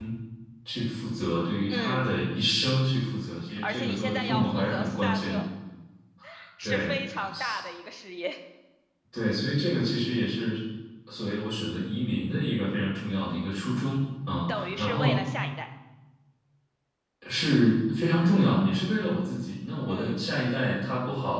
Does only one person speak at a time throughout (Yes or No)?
No